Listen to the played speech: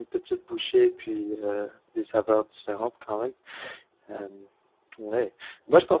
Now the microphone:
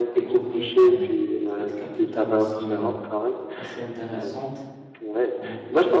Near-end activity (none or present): present